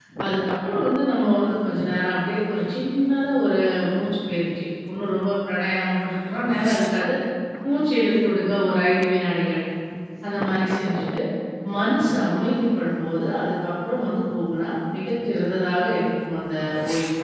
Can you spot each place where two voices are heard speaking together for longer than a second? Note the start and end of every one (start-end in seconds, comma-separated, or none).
none